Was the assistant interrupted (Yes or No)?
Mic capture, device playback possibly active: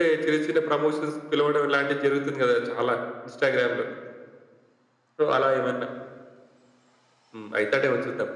No